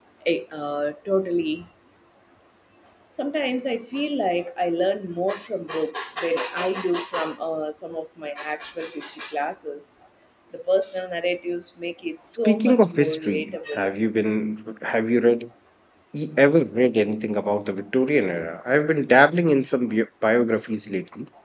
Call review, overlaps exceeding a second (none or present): present